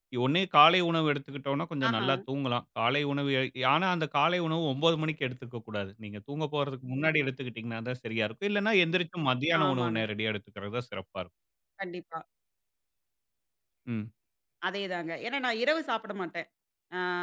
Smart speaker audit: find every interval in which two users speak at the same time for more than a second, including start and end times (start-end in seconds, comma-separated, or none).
none